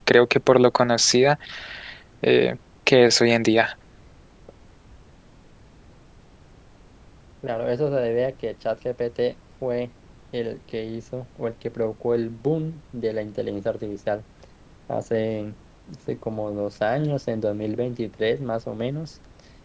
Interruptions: none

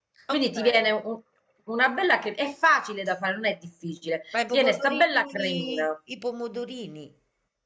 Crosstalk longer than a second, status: present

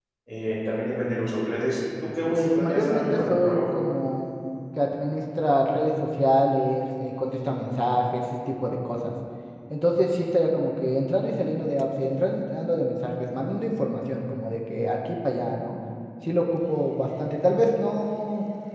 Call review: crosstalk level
present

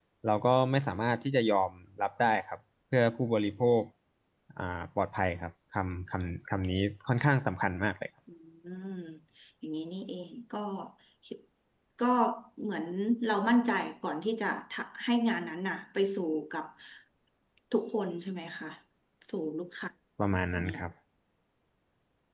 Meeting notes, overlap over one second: none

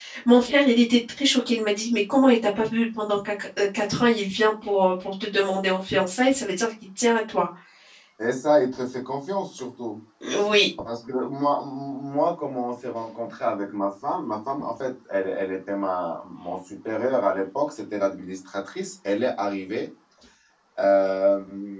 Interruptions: none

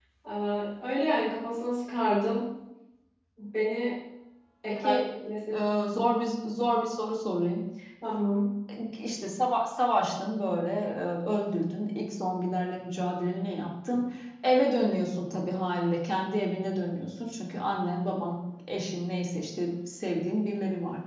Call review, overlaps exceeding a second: none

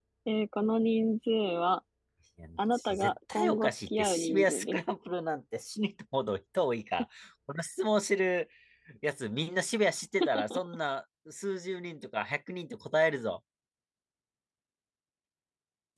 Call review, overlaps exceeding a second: present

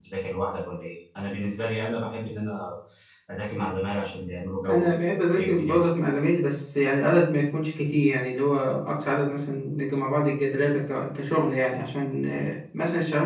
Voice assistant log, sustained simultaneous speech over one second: present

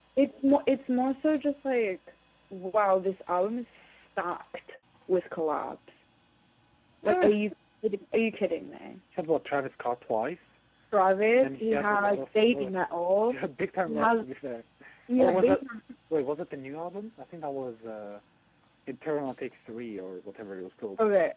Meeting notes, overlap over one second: present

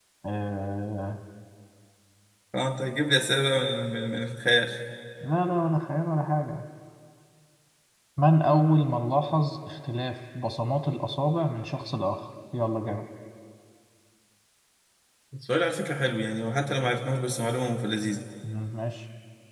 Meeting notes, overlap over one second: none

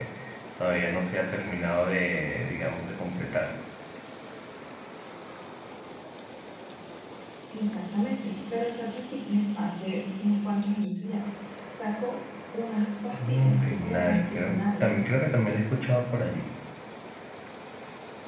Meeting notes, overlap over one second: present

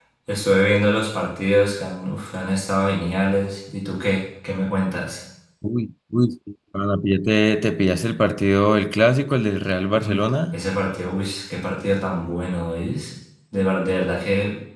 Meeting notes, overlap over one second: none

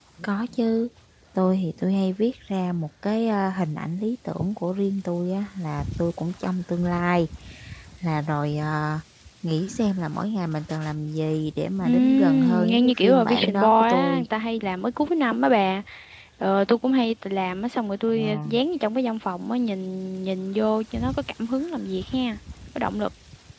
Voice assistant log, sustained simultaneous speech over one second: present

